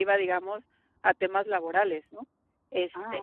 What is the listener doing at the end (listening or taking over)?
listening